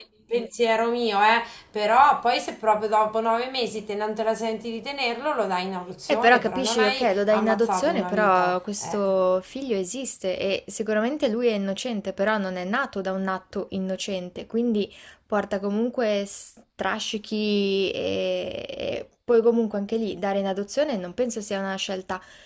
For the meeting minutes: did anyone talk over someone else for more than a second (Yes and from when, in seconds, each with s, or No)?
Yes, from 6.1 s